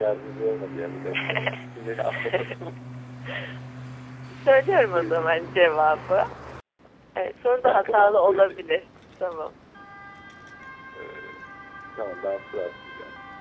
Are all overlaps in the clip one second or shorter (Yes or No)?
No